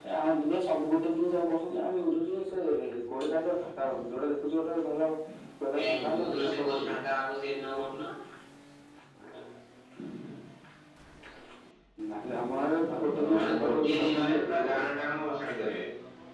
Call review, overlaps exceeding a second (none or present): present